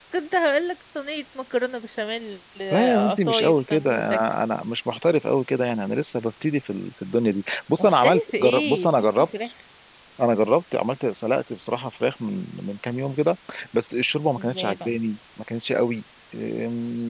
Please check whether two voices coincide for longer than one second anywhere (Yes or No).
Yes